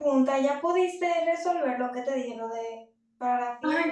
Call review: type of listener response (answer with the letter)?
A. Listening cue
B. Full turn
B